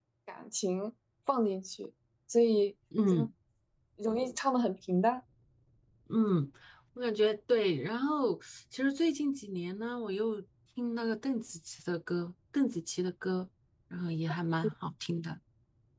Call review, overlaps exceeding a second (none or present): none